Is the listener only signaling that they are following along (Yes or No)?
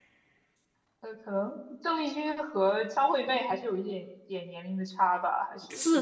No